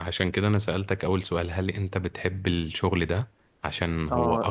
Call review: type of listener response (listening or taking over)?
taking over